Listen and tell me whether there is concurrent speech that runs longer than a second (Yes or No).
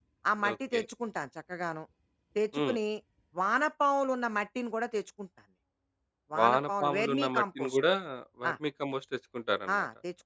Yes